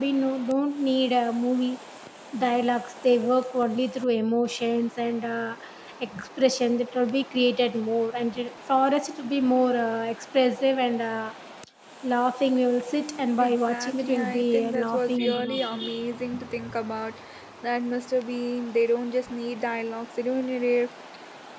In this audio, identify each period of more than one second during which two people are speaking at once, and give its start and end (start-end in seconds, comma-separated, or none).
13.4-15.8